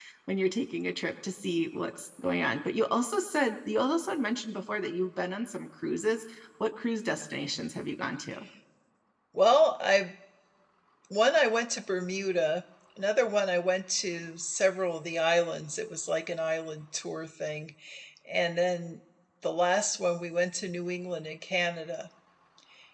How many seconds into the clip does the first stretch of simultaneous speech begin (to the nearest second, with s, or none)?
none